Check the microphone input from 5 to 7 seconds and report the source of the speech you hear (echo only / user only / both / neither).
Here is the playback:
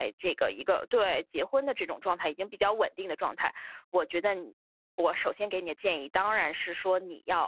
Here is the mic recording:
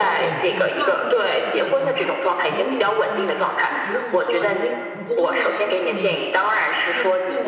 both